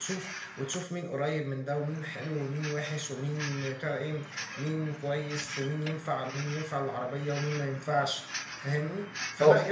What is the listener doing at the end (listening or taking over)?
listening